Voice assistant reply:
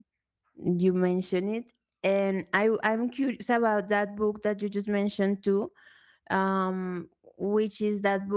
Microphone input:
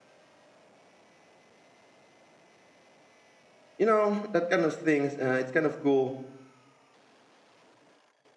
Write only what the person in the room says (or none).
you know that kind of things. Uh, it's kind of cool